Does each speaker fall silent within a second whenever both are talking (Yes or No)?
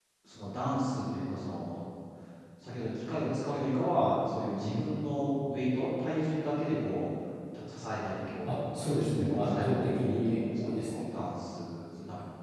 No